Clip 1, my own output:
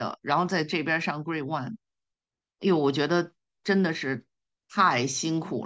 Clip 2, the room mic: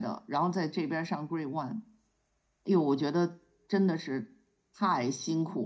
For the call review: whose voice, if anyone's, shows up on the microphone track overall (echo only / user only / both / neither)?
echo only